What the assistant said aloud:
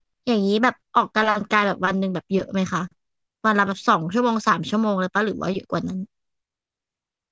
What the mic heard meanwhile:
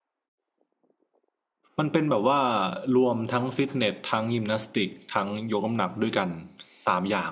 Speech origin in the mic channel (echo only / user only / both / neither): user only